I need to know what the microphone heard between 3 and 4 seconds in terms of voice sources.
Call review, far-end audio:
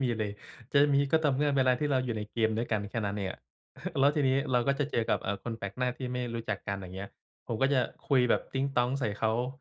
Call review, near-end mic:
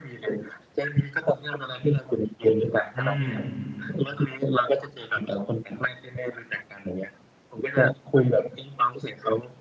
both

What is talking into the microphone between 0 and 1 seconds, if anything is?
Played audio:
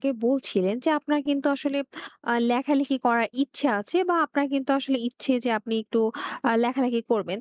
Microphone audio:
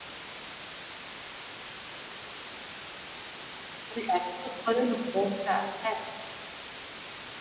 neither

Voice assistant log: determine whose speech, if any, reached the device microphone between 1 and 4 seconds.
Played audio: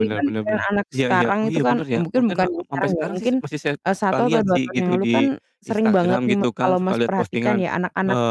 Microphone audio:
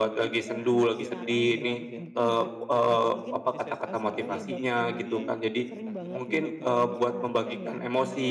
both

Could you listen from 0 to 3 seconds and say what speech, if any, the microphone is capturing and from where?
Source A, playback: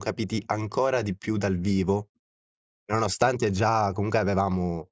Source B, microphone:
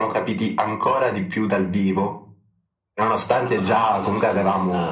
echo only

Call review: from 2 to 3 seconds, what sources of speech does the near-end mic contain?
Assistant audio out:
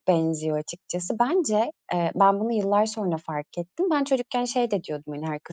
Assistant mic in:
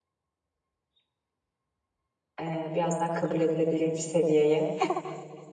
user only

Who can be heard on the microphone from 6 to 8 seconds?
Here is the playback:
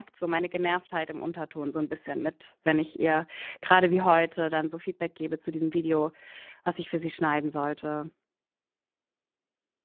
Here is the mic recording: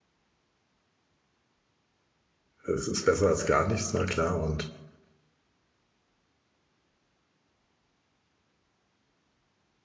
neither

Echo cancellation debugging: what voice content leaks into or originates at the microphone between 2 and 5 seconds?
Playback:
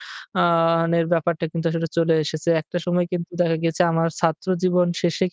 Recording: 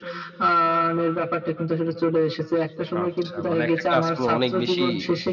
both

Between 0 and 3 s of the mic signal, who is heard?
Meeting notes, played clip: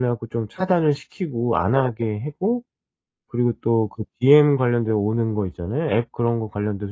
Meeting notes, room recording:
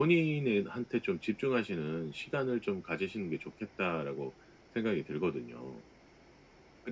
user only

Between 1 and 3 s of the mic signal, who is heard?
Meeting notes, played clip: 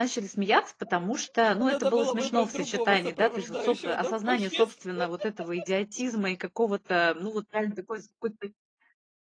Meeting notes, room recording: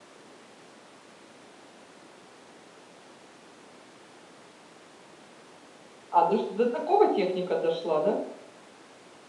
neither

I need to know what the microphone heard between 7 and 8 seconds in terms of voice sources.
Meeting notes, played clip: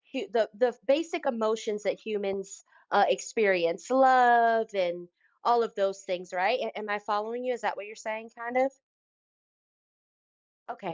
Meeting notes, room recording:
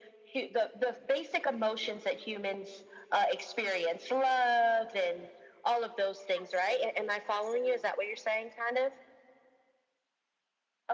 both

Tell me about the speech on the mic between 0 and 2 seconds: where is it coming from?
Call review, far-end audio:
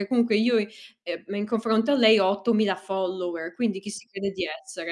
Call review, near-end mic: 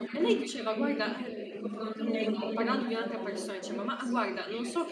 both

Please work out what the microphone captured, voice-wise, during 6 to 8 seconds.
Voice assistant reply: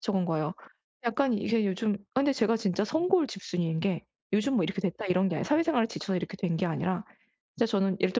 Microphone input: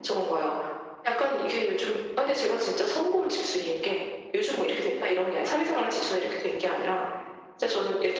echo only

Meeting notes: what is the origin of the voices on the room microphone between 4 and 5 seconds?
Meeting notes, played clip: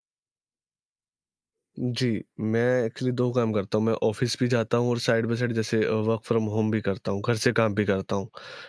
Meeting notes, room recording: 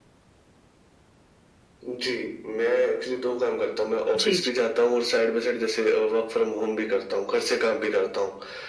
both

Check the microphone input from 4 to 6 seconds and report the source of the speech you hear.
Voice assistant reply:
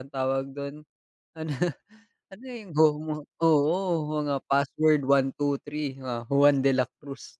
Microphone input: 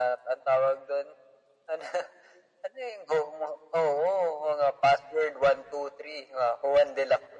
echo only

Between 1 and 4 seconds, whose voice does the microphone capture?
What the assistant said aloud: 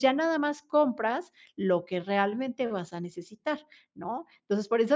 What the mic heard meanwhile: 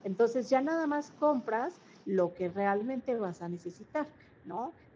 echo only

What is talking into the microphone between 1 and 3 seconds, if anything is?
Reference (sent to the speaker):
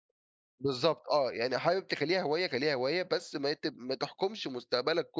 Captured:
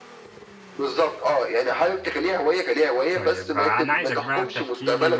echo only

